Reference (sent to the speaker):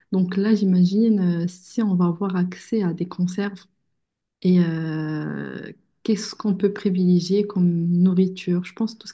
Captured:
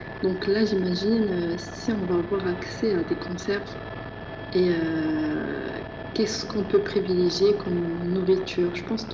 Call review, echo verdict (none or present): present